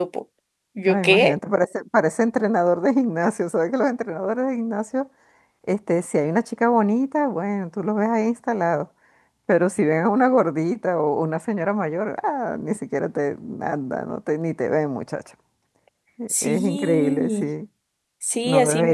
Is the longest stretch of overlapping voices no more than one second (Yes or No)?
No